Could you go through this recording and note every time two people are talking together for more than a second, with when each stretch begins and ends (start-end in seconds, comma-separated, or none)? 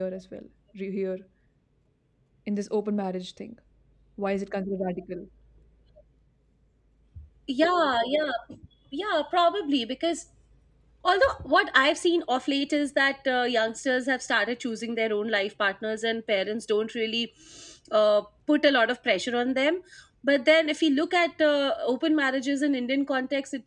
none